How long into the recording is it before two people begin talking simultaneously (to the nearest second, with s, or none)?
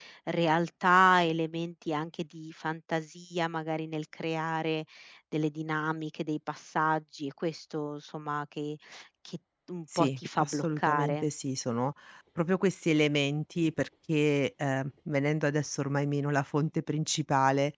10 s